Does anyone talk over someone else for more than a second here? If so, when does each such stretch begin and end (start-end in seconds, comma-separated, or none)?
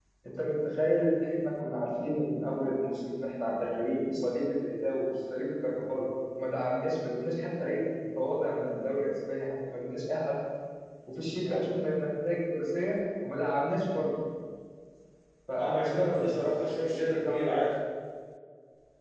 15.6-17.6